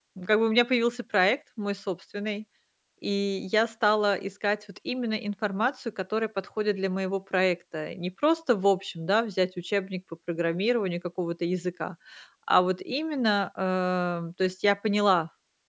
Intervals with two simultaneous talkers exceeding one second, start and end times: none

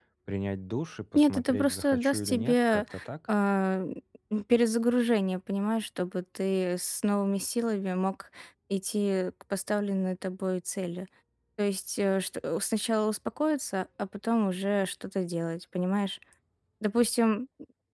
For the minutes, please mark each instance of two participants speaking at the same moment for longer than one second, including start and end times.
1.2-2.8

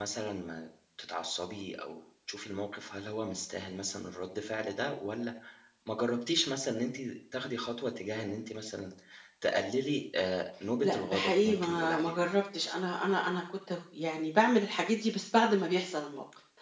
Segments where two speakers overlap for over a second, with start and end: 10.8-12.1

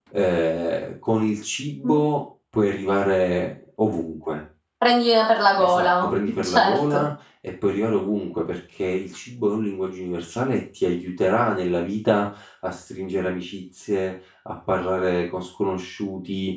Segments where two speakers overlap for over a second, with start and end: 5.6-7.0

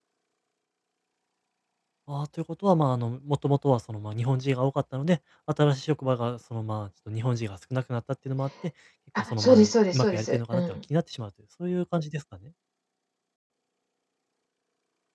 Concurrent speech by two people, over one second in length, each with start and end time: 9.3-10.8

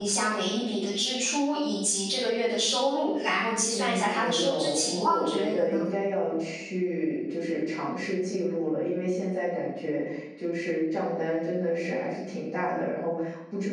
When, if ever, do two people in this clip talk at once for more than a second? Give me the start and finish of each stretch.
3.7-5.8

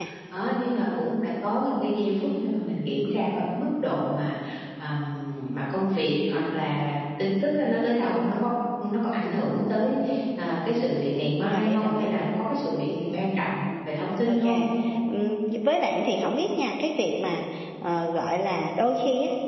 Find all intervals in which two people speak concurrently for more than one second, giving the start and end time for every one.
none

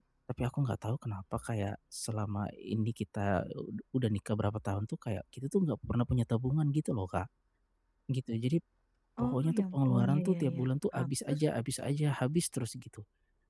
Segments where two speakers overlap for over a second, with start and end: 9.2-11.4

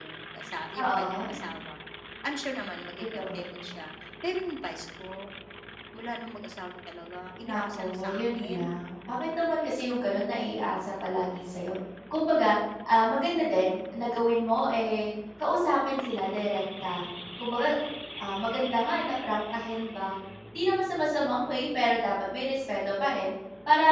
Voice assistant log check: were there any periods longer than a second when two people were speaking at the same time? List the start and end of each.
7.5-8.7

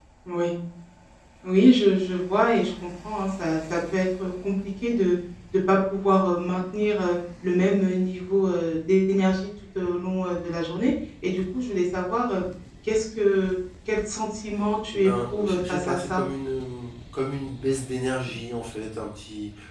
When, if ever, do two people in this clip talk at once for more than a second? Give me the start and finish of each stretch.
14.9-16.2

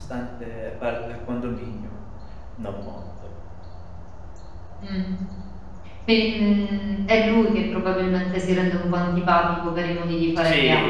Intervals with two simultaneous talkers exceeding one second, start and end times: none

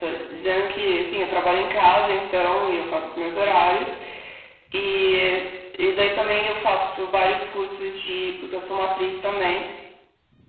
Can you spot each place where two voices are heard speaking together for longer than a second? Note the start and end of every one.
none

